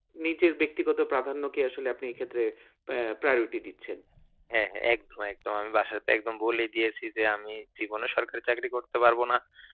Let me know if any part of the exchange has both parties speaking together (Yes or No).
No